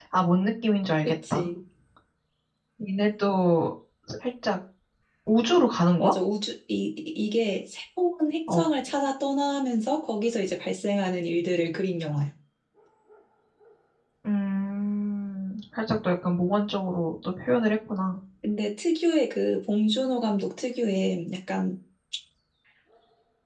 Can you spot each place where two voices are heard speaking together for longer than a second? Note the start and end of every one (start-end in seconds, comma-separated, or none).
none